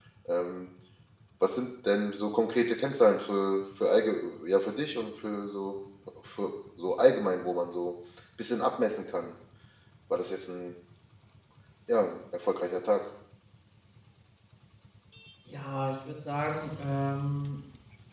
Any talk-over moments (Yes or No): No